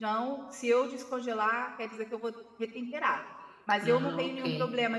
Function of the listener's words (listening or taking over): listening